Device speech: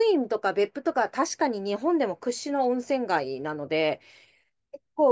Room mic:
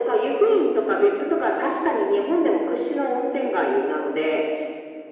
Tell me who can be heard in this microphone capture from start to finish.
echo only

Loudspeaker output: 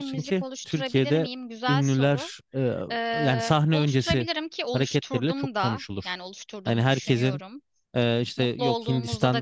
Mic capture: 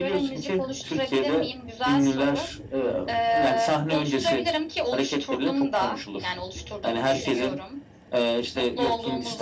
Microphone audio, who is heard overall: echo only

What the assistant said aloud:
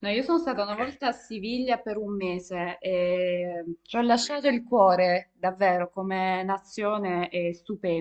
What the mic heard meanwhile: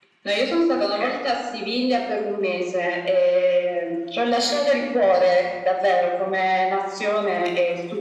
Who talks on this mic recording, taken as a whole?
echo only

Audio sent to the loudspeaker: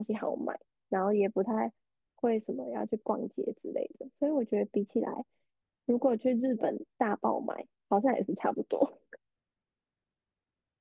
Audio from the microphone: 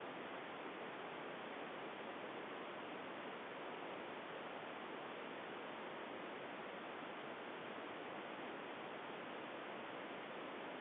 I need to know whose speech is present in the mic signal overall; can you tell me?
neither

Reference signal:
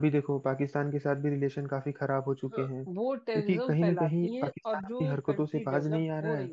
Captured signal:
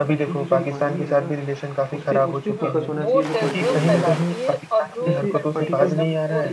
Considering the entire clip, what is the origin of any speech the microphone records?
both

